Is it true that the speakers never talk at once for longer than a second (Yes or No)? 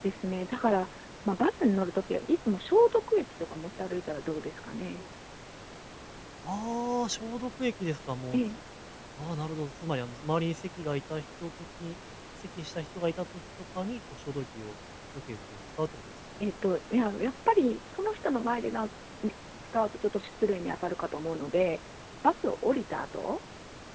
Yes